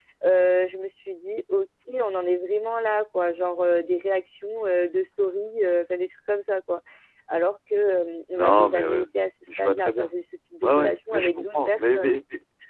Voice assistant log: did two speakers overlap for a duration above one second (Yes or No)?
Yes